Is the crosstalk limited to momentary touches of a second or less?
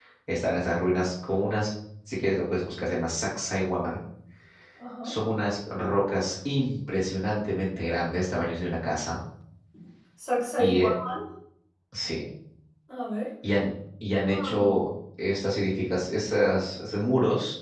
Yes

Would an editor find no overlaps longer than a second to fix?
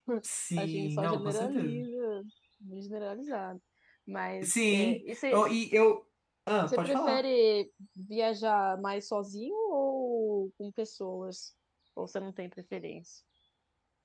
No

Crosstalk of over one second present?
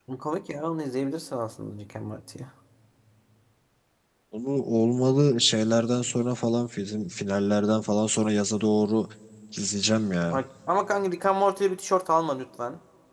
No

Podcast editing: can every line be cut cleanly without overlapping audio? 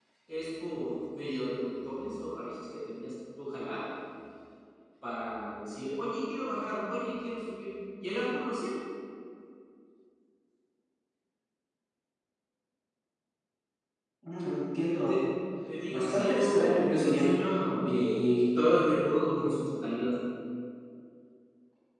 No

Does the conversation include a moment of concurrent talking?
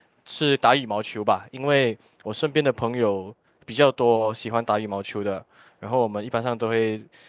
No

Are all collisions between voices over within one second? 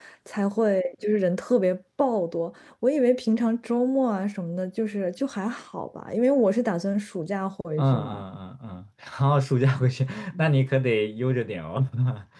Yes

